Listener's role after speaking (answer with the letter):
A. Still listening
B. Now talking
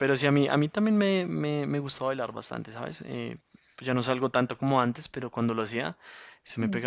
A